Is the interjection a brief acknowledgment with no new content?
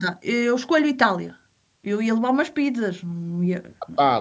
No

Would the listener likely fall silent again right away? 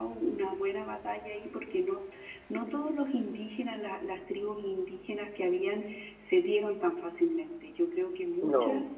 Yes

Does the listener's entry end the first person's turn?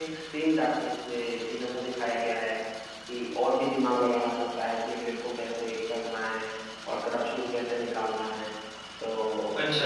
No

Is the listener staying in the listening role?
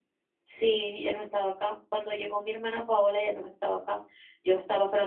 Yes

